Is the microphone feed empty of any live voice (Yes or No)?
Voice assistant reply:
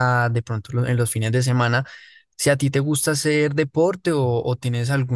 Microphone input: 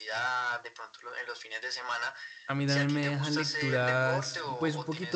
No